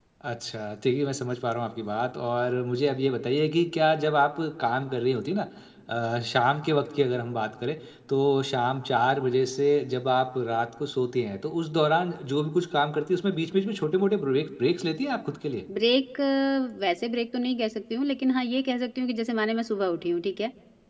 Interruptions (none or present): none